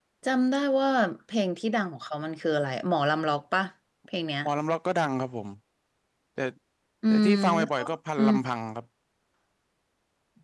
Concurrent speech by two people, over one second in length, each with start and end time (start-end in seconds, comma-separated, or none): 7.1-8.3